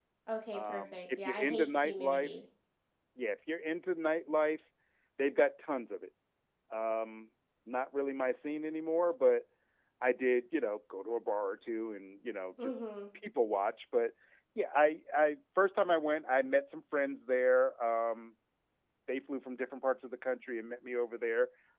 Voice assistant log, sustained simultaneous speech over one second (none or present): present